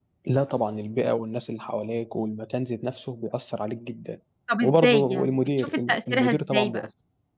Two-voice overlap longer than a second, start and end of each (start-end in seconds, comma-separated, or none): 4.6-6.9